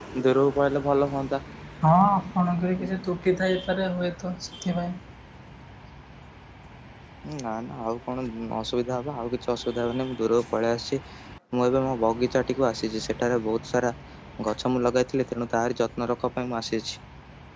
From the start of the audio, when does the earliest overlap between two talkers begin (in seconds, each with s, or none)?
none